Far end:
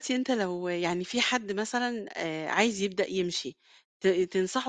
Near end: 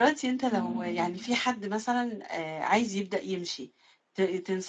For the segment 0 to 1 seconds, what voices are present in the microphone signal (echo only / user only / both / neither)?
both